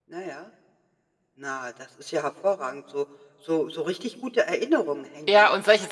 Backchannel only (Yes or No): No